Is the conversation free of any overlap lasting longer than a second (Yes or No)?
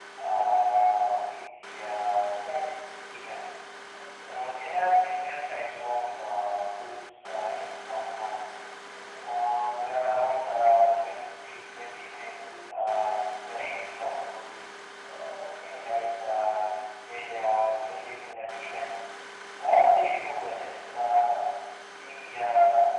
Yes